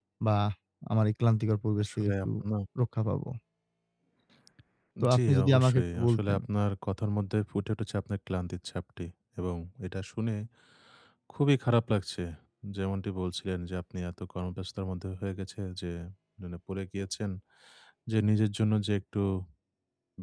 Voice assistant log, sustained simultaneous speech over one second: present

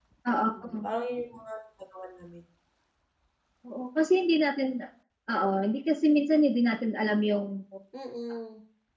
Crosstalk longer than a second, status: none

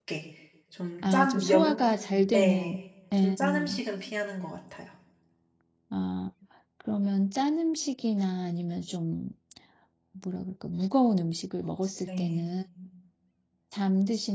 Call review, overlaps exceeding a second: present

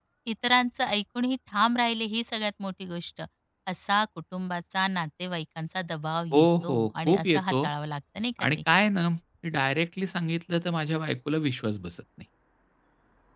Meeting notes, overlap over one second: present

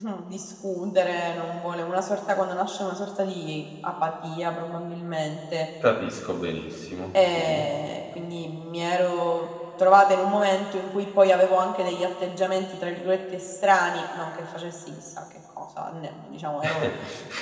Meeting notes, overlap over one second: none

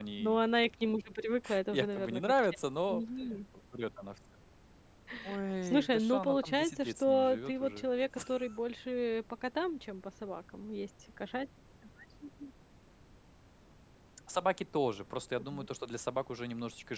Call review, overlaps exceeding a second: present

